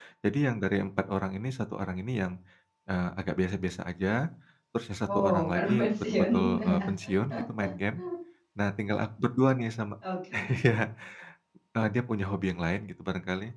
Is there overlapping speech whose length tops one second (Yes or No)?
Yes